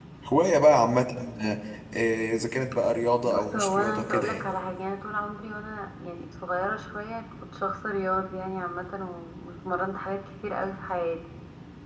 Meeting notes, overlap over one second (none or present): present